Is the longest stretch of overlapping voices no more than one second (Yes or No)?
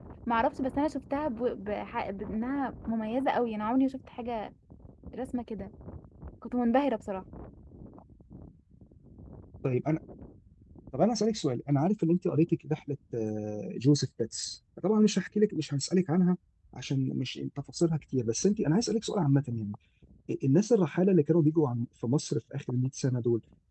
Yes